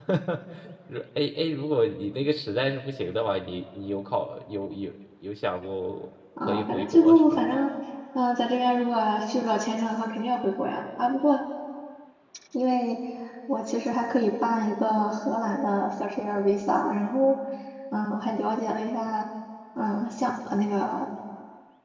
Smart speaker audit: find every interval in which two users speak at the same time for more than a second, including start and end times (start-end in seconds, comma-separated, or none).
6.4-7.6